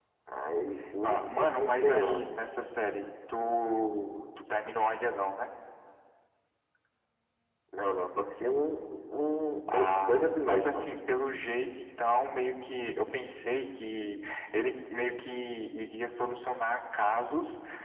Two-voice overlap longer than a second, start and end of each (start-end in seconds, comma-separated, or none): 1.0-2.2, 9.7-10.9